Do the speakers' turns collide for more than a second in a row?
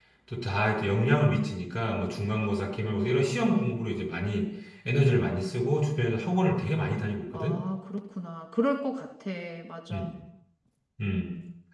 No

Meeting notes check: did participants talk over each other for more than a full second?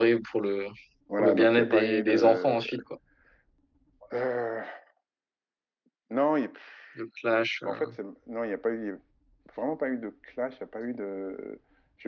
Yes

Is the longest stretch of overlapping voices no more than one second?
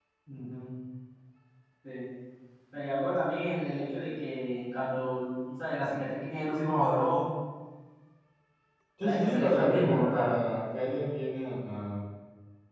No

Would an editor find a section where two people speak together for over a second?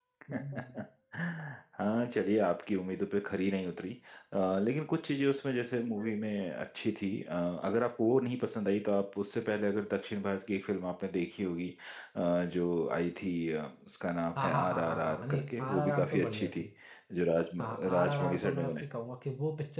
Yes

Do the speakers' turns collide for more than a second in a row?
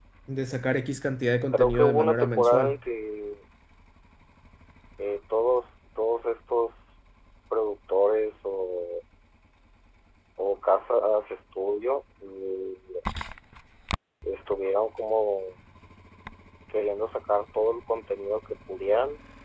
Yes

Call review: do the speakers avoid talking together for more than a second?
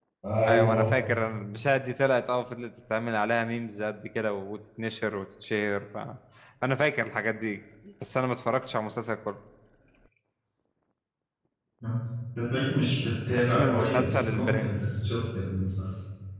No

